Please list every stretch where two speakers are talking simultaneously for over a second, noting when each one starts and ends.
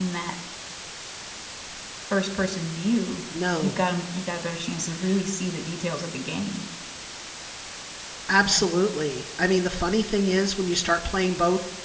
none

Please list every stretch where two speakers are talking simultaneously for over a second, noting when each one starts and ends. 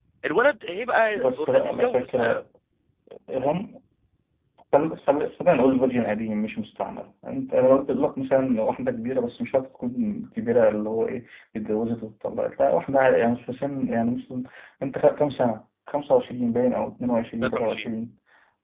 1.1-2.4

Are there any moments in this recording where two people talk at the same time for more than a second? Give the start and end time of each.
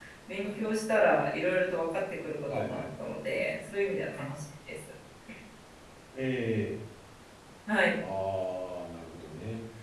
none

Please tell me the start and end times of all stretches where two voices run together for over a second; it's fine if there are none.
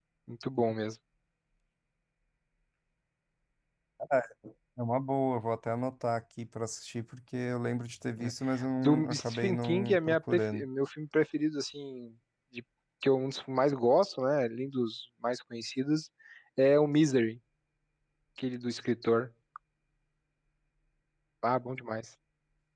8.8-10.6

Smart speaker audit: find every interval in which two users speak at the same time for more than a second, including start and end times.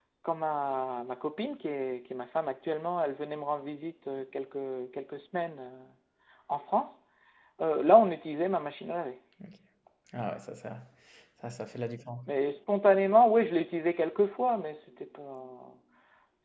none

